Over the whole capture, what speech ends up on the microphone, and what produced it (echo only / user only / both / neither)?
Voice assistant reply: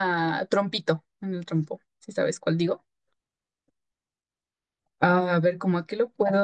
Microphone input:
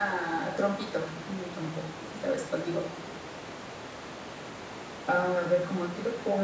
echo only